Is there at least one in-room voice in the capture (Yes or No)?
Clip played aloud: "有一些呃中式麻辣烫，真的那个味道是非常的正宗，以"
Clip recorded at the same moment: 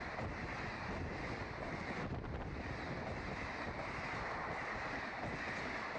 No